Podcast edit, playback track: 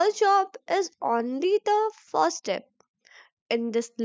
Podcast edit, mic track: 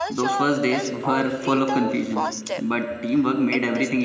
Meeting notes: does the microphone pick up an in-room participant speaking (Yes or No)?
Yes